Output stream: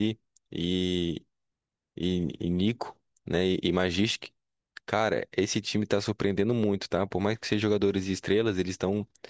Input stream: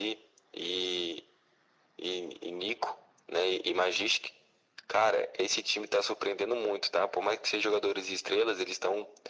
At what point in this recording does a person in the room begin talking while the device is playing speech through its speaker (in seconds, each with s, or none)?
none